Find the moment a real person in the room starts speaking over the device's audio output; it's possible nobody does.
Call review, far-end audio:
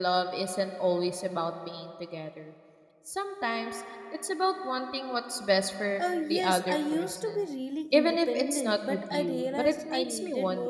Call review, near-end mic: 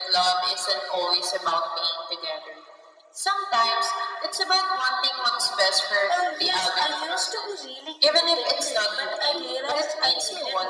none

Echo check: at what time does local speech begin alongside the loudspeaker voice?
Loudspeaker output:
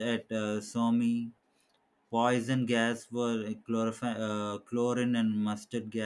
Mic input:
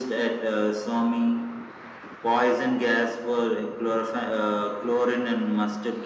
none

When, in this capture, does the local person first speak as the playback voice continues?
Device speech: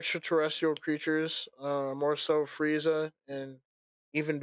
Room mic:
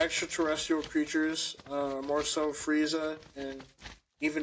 none

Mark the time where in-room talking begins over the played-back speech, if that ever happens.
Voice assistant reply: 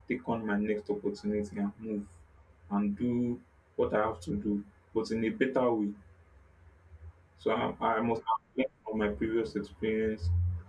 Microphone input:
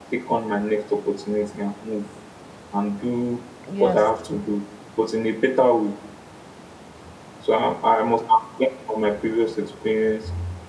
4 s

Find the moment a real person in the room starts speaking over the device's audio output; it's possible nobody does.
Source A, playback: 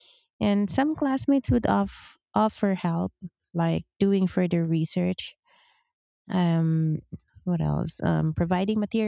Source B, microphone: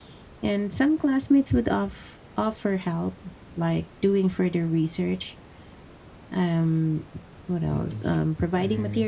8 s

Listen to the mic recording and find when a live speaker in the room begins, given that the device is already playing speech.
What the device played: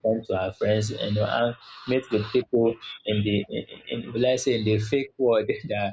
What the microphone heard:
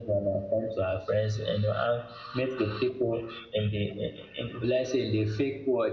none

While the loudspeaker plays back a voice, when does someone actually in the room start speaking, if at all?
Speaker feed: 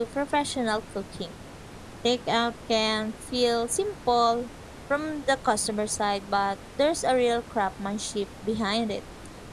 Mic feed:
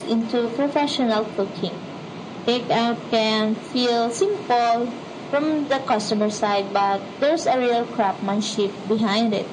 none

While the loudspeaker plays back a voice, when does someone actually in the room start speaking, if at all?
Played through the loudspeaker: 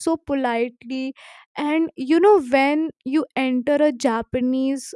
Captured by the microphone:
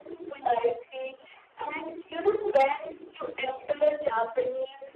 none

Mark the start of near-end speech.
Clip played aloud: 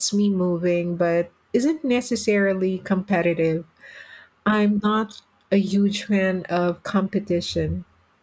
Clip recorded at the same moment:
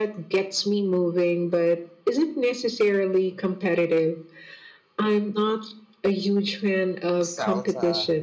7 s

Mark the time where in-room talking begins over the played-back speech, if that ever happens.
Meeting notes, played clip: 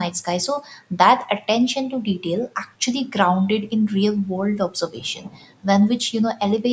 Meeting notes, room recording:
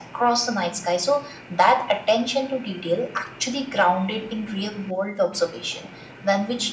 none

